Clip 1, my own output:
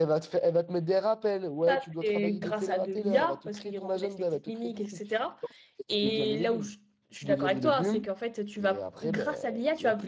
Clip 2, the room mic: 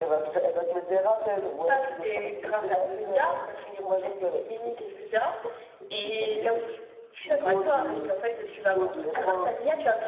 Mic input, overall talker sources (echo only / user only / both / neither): both